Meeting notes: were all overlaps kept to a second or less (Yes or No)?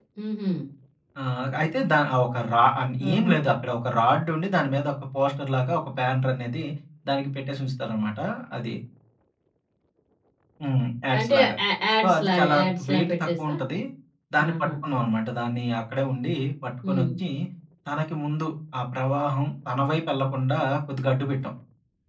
No